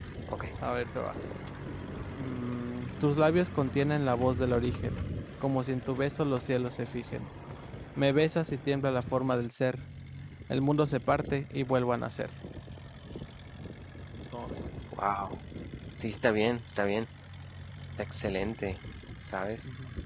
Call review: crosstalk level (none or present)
none